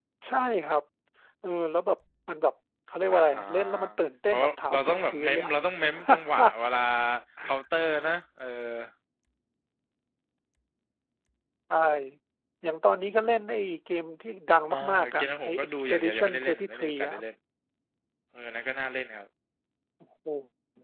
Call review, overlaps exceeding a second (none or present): present